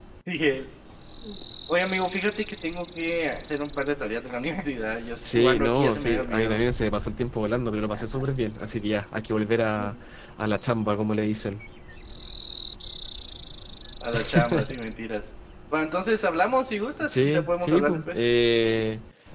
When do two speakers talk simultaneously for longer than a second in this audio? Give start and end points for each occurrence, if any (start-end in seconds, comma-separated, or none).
5.2-6.6, 17.0-18.2